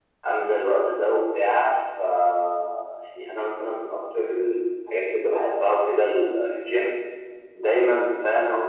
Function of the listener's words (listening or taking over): listening